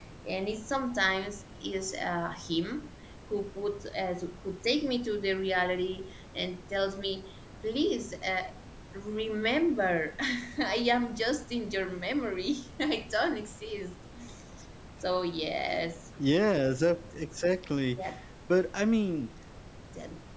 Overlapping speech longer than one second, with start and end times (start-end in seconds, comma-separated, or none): none